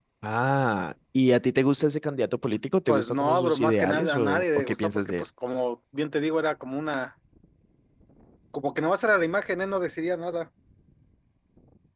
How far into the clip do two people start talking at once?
2.9 s

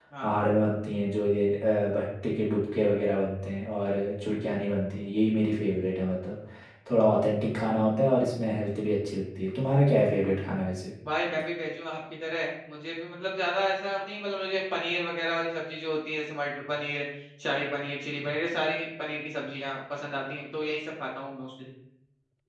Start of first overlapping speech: none

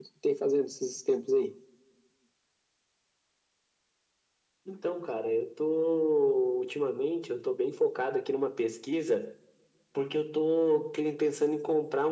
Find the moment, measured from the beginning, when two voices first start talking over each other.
none

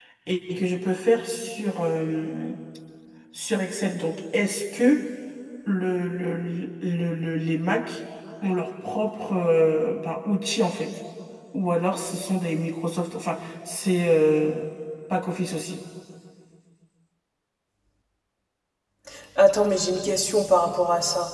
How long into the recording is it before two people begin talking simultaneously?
none

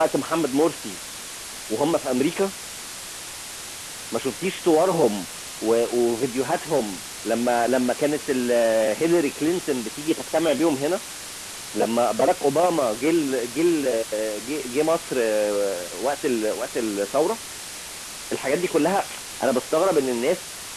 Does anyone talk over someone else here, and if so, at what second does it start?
none

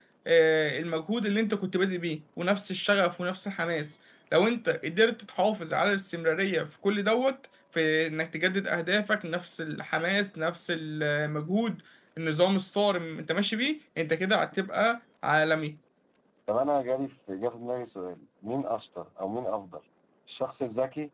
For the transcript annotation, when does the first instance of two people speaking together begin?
none

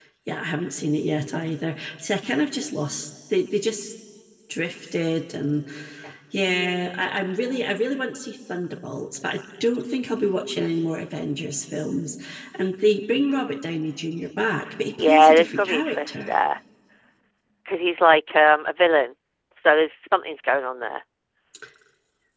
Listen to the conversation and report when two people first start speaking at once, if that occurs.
15.0 s

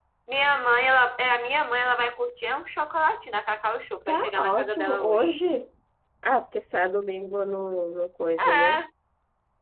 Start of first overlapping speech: 4.1 s

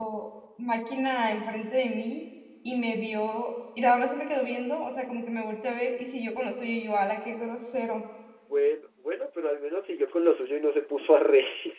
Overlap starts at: none

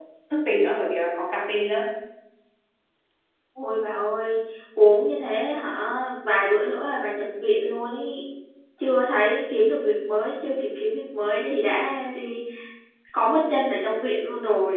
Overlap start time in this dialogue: none

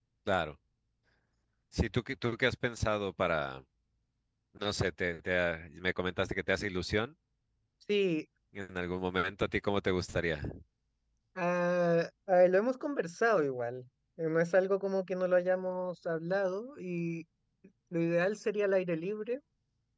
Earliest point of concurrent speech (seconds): none

